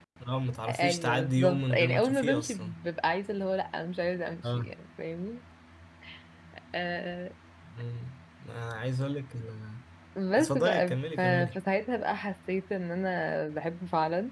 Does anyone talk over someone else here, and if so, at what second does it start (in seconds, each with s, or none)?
0.7 s